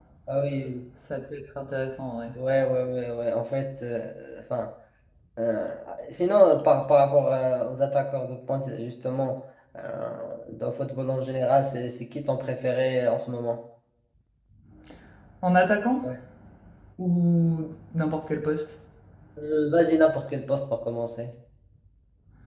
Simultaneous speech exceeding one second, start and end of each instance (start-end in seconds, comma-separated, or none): none